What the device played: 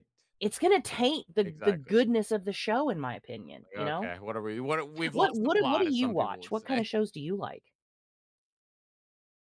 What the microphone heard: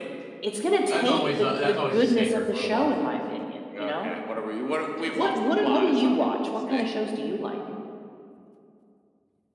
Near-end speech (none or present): present